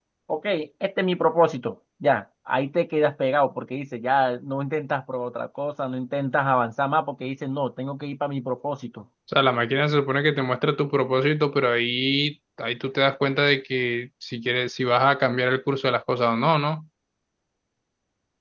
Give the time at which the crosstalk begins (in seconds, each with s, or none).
none